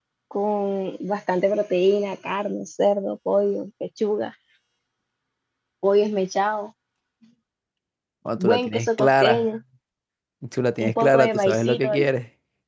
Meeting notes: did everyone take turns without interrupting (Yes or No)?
No